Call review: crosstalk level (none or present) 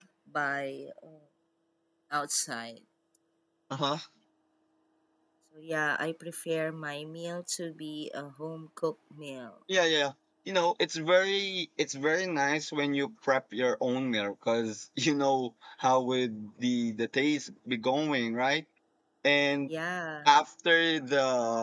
none